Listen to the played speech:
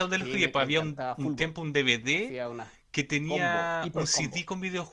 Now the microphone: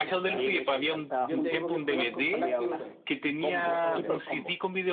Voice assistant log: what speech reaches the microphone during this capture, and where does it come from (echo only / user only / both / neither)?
both